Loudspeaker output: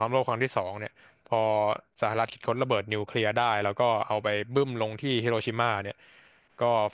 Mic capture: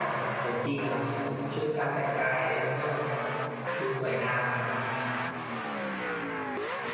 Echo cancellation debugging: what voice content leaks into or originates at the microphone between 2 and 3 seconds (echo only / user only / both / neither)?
user only